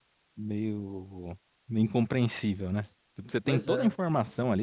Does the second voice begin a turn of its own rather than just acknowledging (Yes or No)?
No